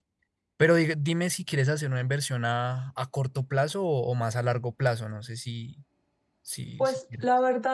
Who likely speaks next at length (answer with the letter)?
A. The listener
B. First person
A